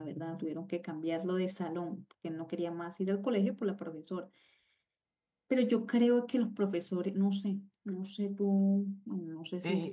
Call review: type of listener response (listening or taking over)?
taking over